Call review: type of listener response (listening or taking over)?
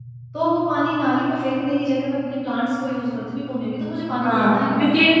taking over